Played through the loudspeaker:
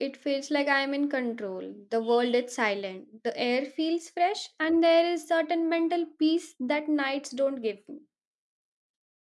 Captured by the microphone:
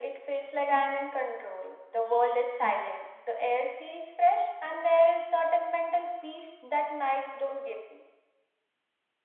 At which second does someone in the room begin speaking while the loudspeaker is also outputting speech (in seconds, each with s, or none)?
none